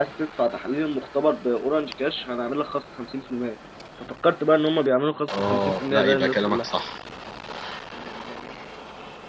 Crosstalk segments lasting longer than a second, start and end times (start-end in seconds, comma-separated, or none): 5.3-6.7